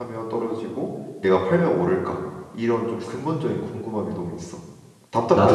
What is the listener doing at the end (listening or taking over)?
taking over